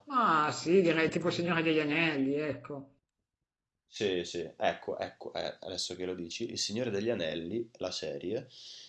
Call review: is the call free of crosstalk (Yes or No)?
Yes